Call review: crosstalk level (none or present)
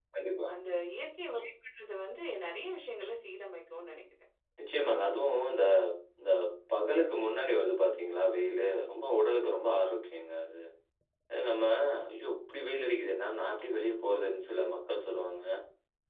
none